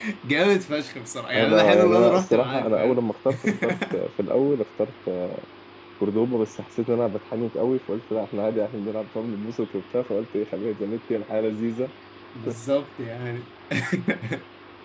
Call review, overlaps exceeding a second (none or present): present